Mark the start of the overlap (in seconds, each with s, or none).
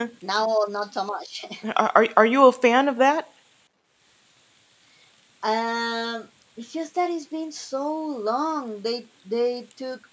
none